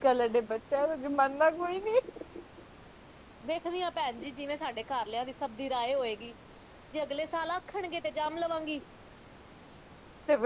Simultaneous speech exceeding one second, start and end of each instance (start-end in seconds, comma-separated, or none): none